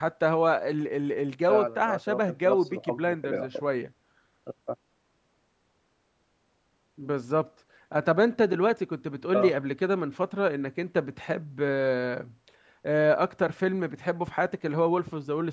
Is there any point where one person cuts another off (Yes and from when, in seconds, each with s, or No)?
Yes, from 1.5 s